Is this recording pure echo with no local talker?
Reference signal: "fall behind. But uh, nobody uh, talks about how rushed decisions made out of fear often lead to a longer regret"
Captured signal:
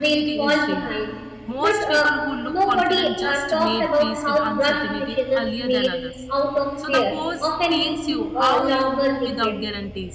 No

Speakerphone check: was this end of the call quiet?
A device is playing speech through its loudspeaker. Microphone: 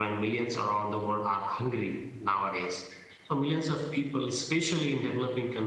No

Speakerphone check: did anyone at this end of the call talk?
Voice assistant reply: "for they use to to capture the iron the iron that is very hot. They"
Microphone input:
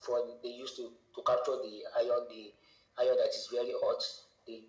No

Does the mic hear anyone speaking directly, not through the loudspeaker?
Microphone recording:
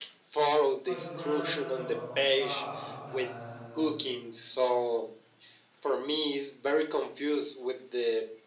Yes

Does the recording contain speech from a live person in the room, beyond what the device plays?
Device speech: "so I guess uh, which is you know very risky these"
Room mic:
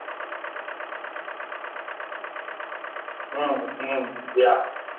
Yes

